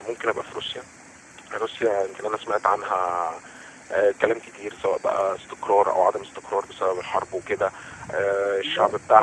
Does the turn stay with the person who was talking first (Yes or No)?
Yes